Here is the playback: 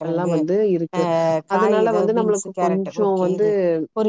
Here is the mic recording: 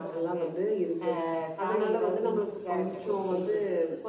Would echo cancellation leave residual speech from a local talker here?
No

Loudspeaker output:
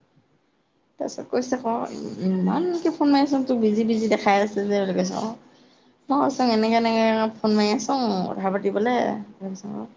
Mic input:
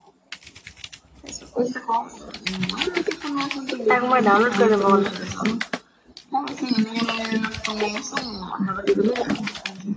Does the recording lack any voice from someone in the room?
No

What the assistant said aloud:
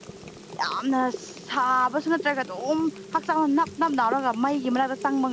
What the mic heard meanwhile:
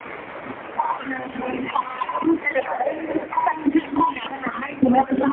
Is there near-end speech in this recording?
No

